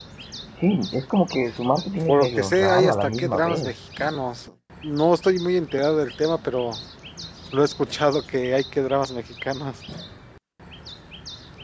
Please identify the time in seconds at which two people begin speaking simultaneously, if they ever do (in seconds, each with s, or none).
2.1 s